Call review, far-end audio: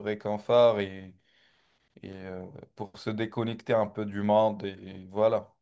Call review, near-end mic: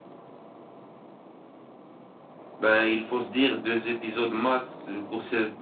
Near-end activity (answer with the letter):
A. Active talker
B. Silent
A